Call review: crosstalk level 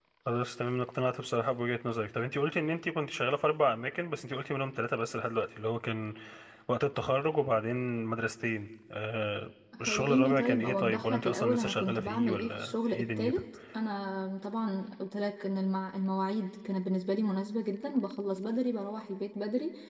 present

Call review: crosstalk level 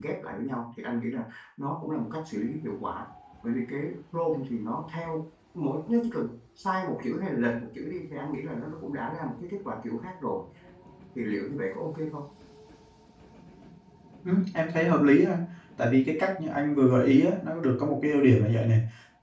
none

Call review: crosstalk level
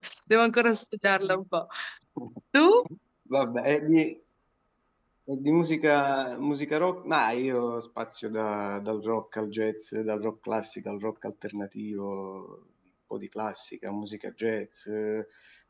none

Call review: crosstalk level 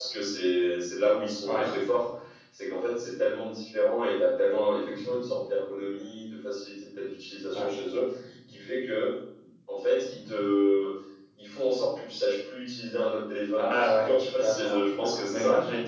present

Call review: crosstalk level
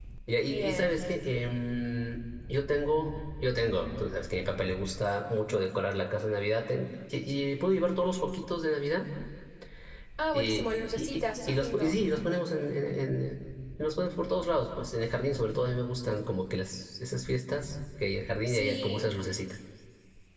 present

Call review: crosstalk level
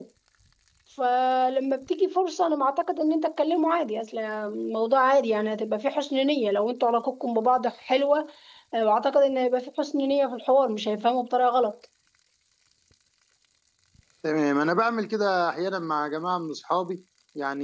none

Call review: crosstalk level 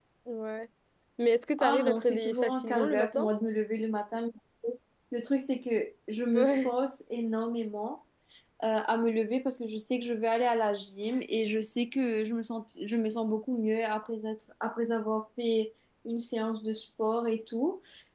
present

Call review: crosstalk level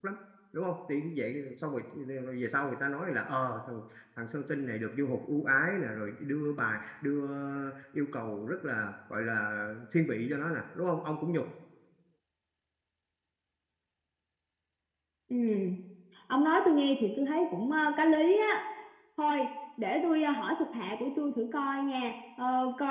none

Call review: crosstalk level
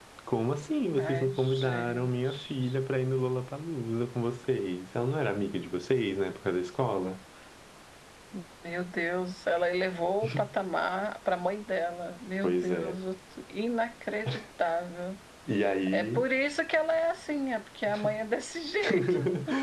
present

